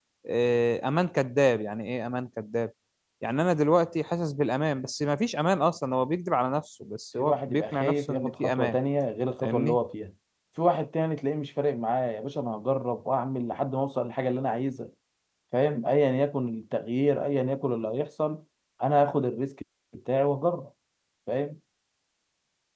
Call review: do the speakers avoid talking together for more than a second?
No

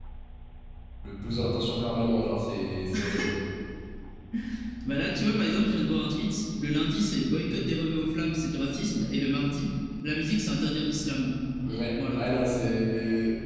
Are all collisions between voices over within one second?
Yes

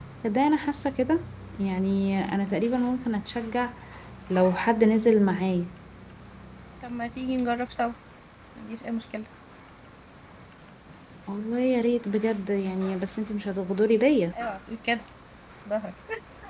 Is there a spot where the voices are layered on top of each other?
No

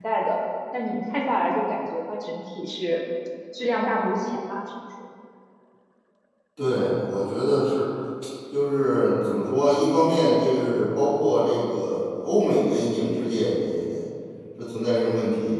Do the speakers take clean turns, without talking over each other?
Yes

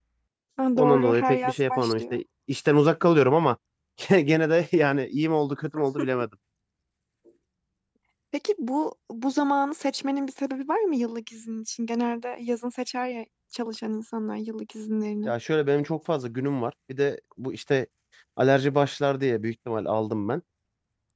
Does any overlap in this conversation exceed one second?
Yes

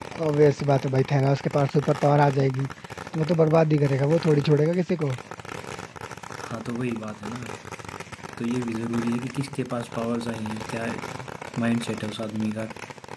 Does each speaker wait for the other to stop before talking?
Yes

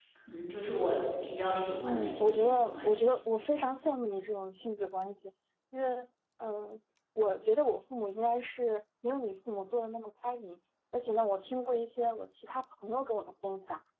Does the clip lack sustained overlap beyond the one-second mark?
No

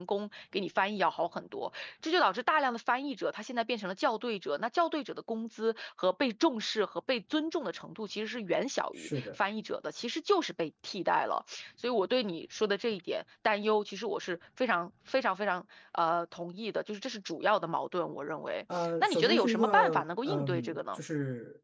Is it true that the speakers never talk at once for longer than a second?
No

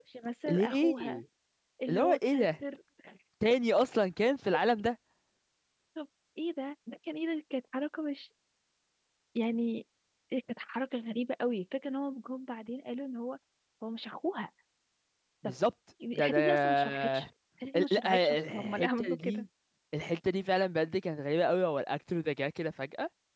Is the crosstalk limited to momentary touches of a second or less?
No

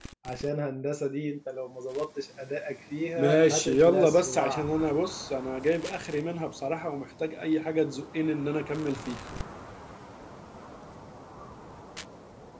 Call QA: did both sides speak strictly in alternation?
No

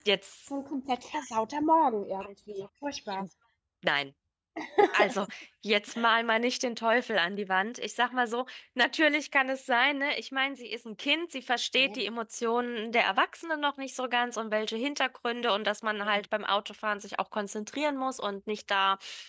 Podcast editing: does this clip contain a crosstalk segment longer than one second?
No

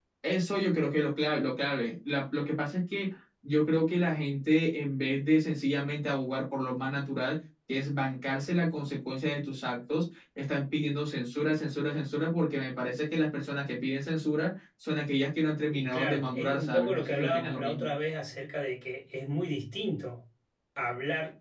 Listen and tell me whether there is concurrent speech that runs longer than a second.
Yes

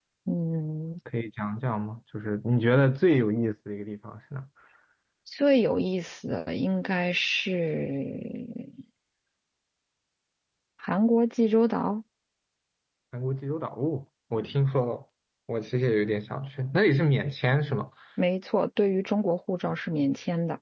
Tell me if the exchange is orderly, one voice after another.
Yes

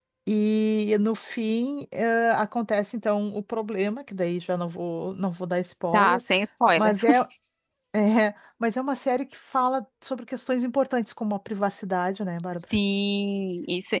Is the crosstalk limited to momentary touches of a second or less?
Yes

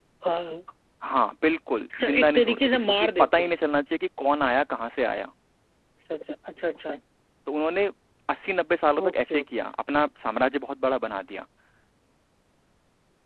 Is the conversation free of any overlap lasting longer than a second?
No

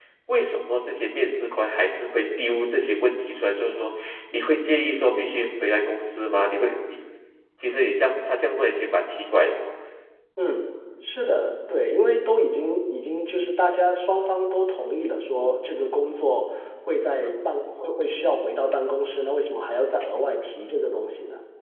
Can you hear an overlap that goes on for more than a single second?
No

